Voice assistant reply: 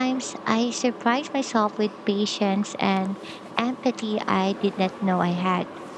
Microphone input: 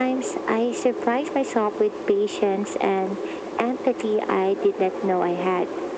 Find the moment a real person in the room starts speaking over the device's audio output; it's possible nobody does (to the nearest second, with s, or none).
none